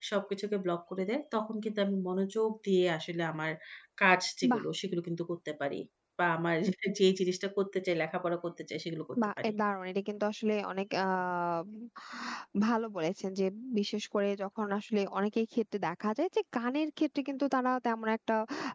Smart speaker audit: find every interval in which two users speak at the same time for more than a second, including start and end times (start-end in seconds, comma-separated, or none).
none